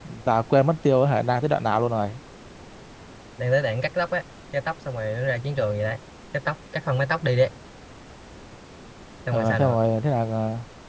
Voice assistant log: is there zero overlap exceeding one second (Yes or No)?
Yes